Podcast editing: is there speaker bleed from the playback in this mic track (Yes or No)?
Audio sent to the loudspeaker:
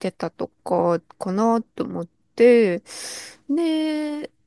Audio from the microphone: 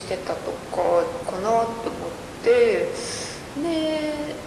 Yes